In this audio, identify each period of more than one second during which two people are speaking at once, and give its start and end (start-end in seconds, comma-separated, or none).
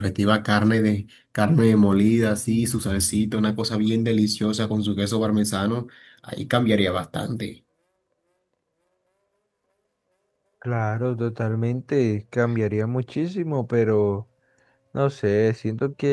none